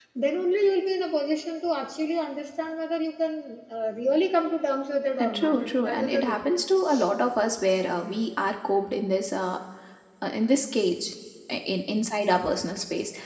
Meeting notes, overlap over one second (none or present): present